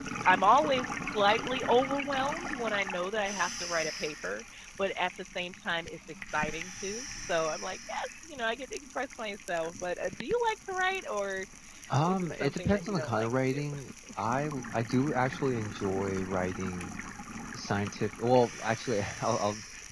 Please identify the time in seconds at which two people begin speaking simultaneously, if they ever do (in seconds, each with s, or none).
12.0 s